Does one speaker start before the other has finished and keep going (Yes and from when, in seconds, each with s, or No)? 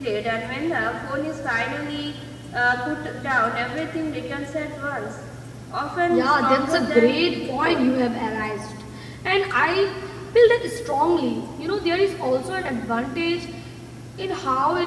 Yes, from 6.1 s